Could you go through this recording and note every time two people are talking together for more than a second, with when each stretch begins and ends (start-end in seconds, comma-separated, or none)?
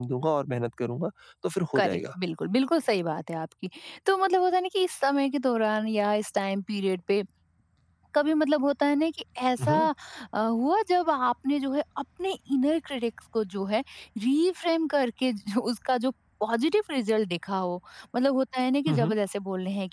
none